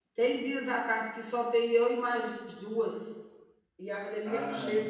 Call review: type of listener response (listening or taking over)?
listening